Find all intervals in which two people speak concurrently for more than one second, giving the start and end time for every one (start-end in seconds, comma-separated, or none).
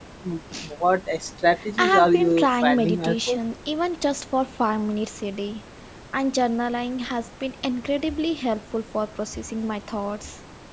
1.8-3.4